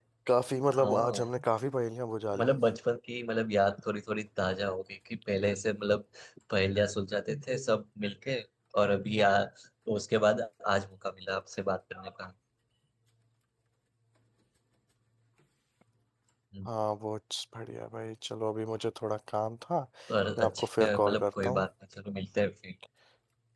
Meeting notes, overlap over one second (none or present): present